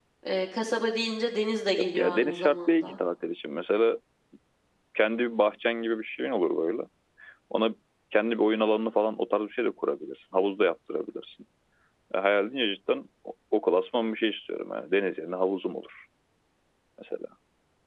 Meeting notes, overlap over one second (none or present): present